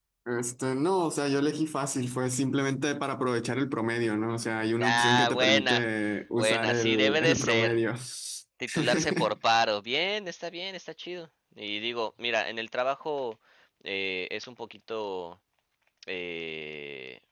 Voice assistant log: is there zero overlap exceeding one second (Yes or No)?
No